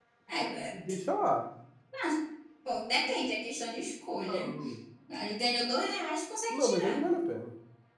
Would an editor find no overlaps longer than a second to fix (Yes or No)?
Yes